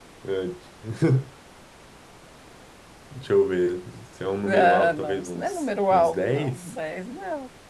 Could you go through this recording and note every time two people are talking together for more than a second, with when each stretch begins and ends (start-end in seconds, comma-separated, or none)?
4.5-6.7